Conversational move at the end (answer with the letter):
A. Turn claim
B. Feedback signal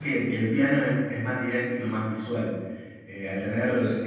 B